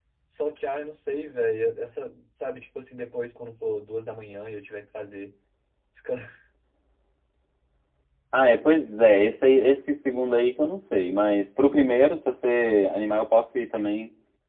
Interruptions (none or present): none